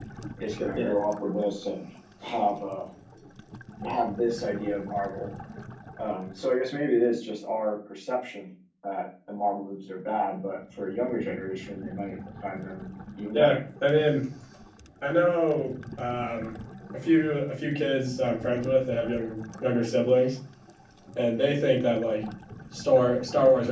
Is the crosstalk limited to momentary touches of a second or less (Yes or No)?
Yes